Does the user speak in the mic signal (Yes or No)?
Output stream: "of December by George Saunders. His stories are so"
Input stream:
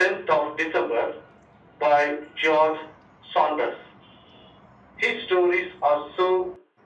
No